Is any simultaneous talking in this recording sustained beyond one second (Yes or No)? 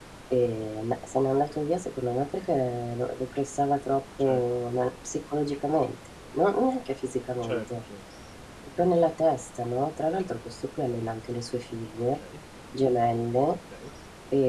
No